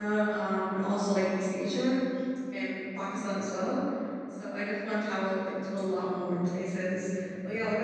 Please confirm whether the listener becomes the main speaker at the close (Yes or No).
No